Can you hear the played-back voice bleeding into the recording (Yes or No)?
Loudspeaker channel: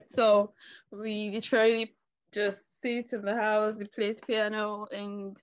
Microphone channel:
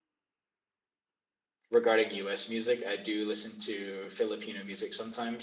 No